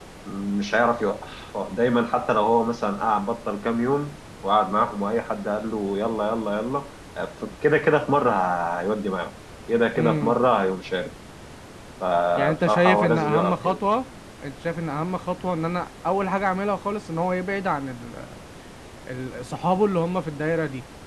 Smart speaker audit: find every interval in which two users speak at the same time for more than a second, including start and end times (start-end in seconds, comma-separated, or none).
12.4-13.8